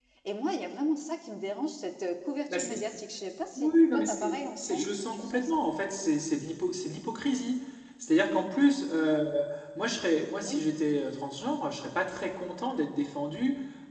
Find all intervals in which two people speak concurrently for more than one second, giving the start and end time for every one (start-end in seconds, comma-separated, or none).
3.6-5.6